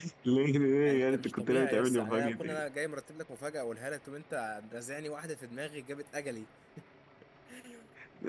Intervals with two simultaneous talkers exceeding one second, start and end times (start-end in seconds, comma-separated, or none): 0.8-2.6